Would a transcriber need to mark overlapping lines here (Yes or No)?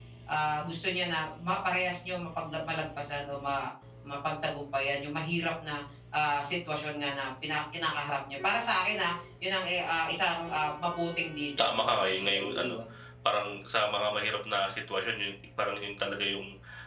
Yes